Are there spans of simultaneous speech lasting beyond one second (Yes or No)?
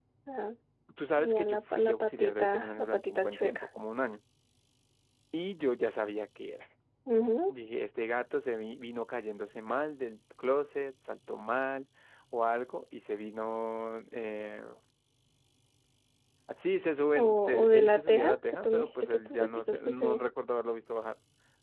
Yes